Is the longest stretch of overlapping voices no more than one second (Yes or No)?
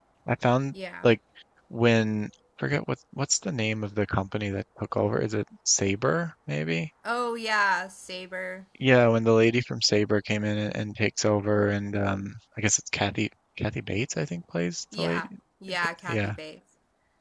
Yes